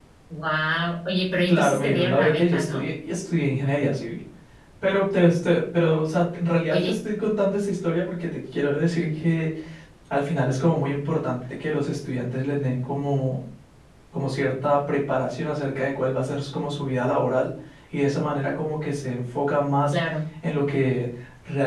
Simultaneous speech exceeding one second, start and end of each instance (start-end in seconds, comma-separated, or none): 1.5-2.8